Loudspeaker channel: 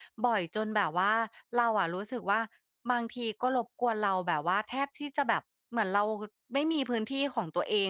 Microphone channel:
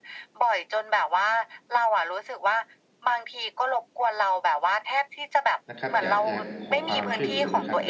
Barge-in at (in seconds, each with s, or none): 5.7 s